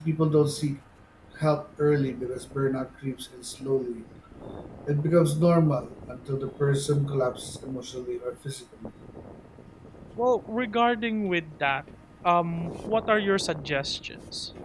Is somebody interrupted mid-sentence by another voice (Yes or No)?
No